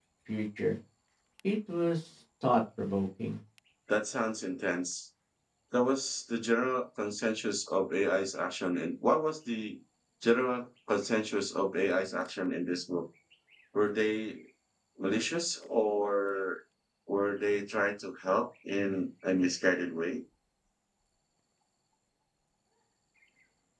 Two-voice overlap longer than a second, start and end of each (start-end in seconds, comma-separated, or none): none